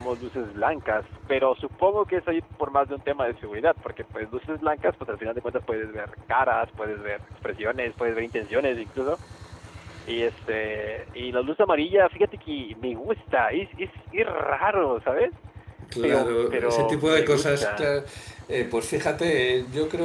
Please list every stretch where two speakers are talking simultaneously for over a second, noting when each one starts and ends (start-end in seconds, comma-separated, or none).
16.0-17.9